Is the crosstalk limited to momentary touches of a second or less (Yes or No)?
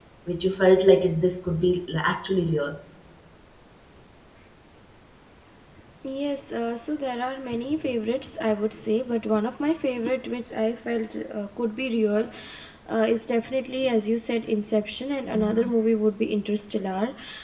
Yes